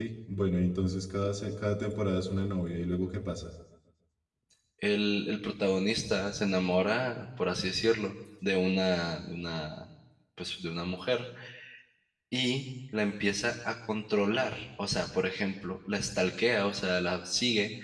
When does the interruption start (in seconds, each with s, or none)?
none